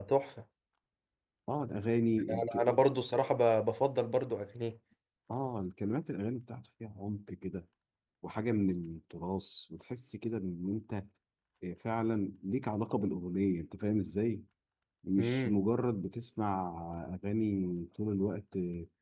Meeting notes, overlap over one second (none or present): none